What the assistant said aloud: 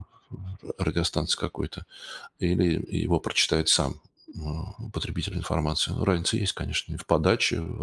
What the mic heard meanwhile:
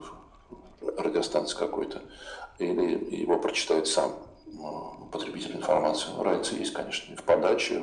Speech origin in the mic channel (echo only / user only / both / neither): echo only